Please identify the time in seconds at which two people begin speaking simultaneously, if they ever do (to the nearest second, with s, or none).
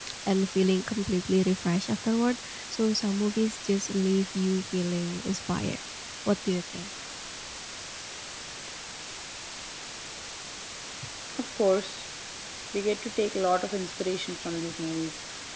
none